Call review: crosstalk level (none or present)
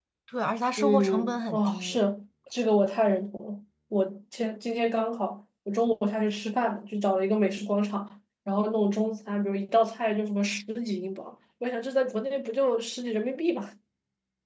present